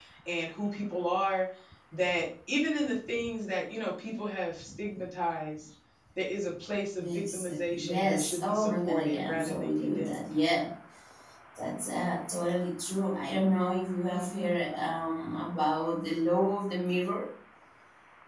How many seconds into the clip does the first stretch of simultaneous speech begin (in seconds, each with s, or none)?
7.0 s